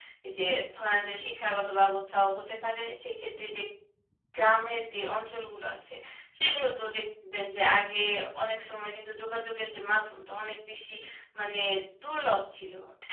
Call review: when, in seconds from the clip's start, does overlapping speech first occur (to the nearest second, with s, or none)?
none